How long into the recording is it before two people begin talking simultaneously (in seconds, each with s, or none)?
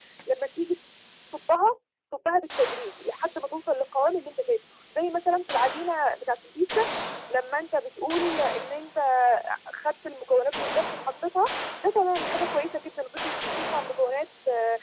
none